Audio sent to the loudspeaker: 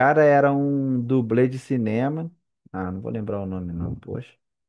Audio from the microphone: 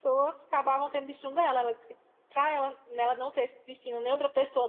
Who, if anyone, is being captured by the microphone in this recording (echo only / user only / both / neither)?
user only